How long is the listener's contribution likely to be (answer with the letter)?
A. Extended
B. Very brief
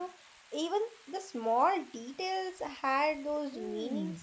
A